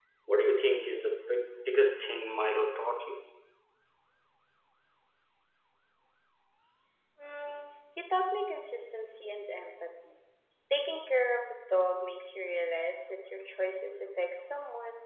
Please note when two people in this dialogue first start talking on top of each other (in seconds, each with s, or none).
none